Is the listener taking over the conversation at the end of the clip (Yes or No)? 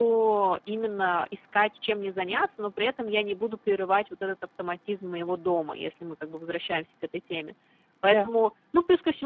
No